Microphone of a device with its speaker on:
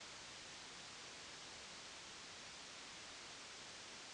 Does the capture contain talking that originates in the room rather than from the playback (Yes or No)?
No